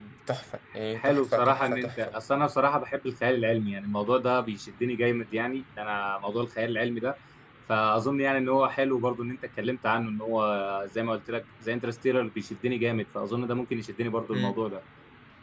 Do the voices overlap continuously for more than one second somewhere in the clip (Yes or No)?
Yes